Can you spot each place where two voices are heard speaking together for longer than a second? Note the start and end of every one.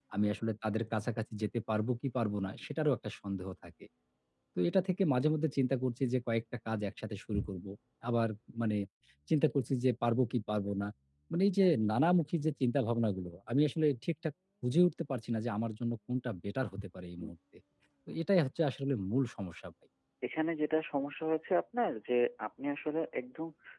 none

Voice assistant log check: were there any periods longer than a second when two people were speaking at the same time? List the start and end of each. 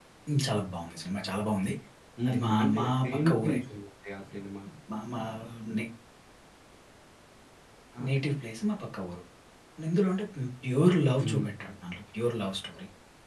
2.3-3.6

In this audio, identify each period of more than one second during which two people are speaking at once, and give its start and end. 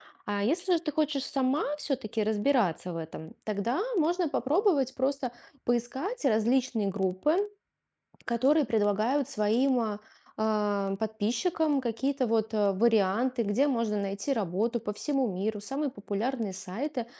none

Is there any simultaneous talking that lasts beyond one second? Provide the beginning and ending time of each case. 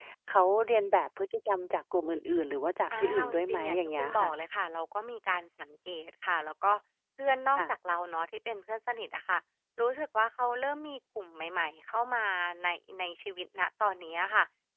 2.9-4.3

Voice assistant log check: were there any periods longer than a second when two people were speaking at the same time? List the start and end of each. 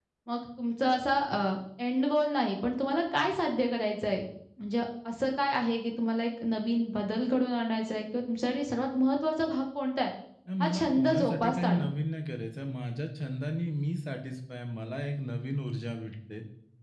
10.6-11.8

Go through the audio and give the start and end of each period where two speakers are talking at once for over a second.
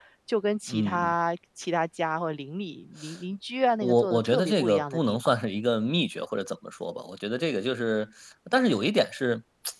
3.8-5.3

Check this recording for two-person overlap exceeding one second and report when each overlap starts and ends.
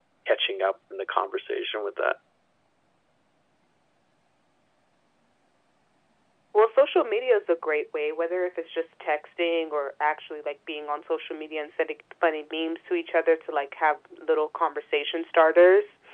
none

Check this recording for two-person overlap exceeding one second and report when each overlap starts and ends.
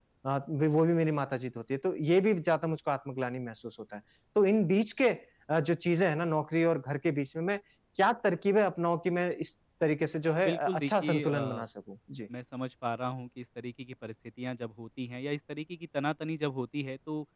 10.3-11.6

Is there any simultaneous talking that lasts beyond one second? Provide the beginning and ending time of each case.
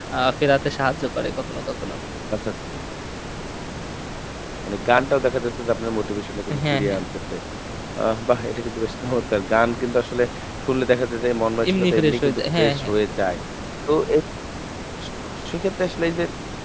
11.7-12.9

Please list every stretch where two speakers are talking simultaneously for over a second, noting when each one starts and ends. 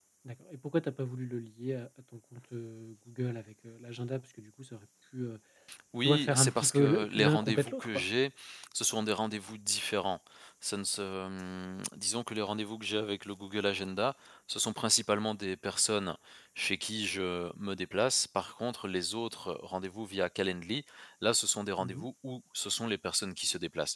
6.0-8.0

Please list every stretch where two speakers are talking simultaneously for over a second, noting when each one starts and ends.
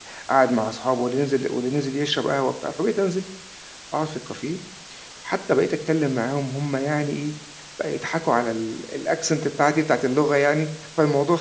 none

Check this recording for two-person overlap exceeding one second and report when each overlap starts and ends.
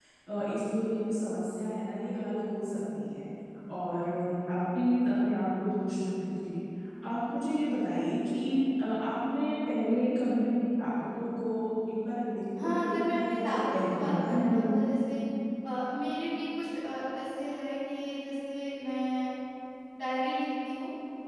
12.6-14.8

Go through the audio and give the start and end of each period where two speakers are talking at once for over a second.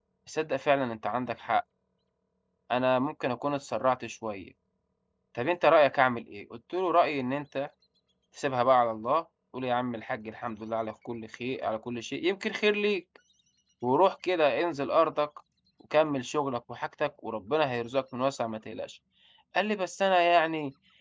none

